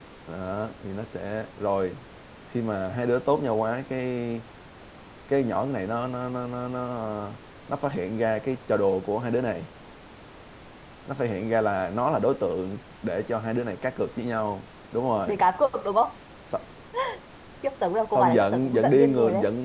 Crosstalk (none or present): present